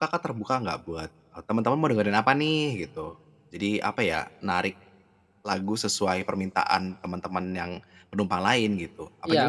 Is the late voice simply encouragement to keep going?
No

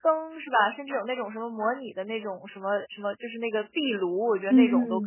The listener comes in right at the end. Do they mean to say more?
Yes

